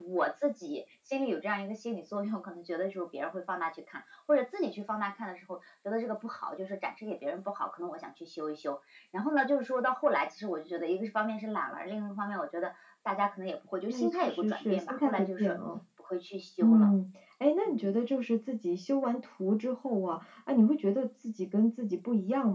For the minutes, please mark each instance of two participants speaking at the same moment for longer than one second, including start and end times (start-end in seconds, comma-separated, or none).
13.9-15.5